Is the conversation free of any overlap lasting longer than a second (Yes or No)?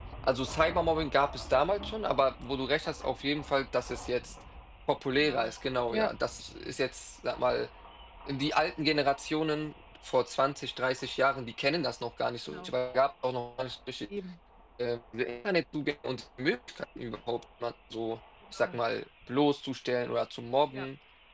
Yes